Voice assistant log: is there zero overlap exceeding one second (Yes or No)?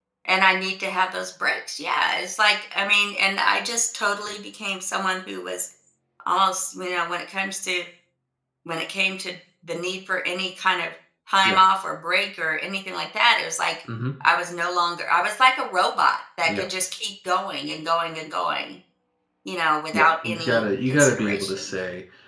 No